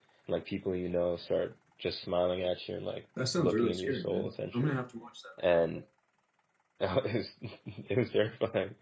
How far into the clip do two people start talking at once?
3.4 s

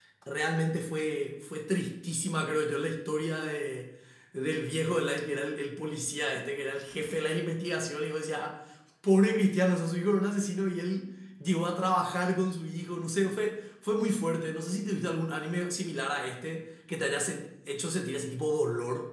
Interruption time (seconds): none

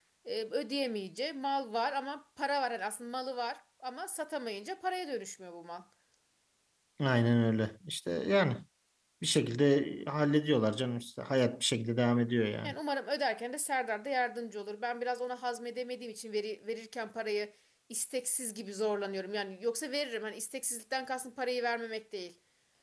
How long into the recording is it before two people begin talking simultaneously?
none

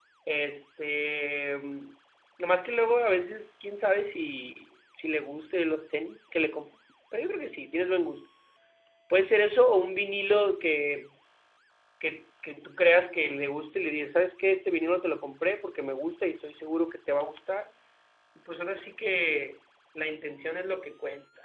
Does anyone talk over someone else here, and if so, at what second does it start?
none

